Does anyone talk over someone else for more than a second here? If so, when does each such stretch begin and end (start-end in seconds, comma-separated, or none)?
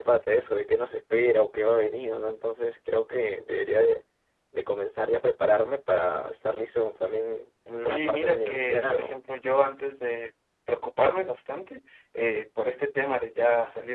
7.8-9.1